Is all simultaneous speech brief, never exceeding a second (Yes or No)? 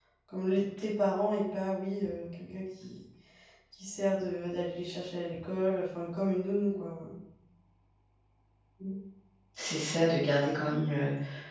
Yes